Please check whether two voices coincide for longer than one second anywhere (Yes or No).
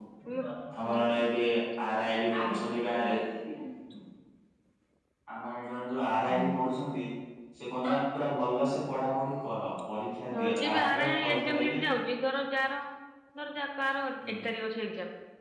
Yes